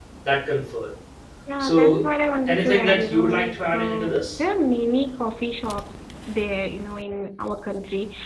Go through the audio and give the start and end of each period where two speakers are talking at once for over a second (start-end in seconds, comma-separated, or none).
2.5-4.2